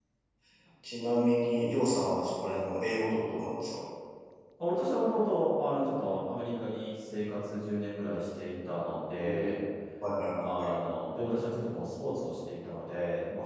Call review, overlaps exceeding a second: none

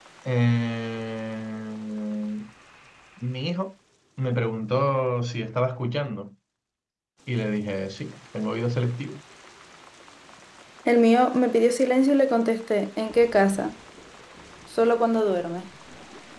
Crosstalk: none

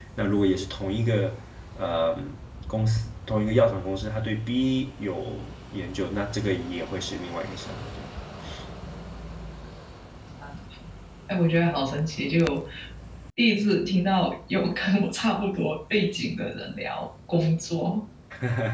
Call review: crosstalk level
none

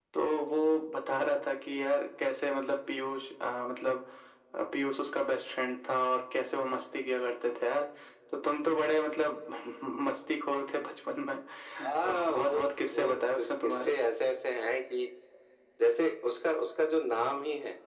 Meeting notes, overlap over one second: present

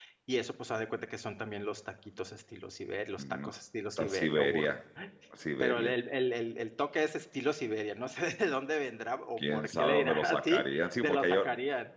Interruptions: present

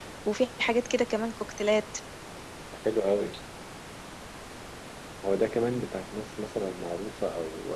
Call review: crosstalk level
none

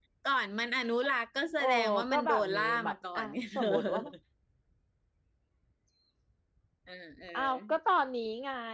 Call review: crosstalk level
present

